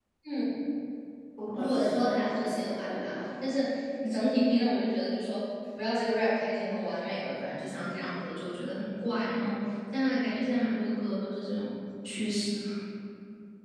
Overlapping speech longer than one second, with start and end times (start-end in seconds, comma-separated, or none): 1.5-3.2